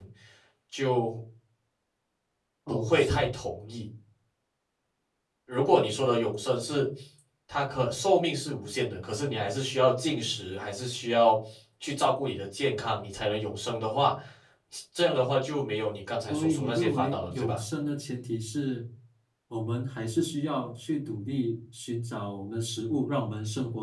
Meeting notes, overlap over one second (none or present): present